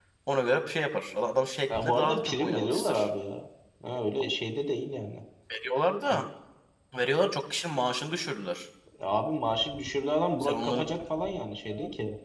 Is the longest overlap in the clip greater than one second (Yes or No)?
Yes